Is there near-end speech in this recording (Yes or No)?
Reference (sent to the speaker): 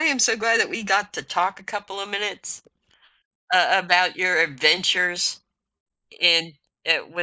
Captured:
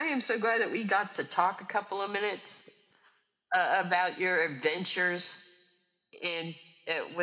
No